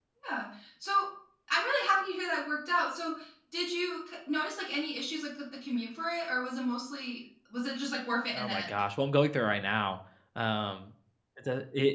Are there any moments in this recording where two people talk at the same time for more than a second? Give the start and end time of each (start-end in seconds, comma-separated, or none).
none